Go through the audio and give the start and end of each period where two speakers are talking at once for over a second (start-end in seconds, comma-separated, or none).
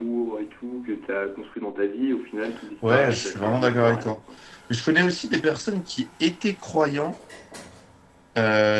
2.9-4.2